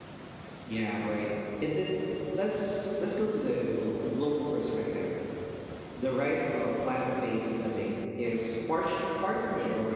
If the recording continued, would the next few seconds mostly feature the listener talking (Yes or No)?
No